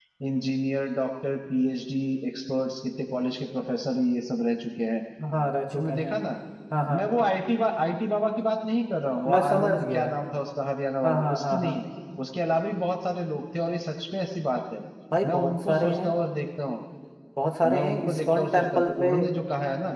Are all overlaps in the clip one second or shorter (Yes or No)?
No